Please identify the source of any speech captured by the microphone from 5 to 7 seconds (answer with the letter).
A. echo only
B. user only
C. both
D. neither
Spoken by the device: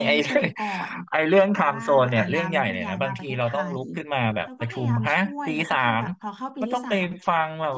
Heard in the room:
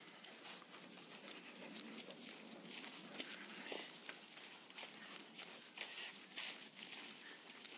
D